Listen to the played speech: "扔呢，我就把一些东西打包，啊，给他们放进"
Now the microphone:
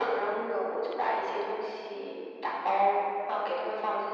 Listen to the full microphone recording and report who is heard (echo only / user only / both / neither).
echo only